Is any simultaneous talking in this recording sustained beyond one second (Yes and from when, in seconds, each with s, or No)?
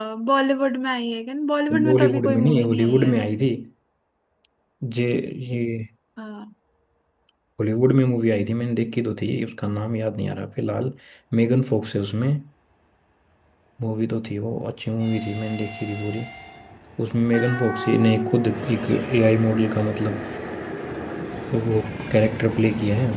Yes, from 1.7 s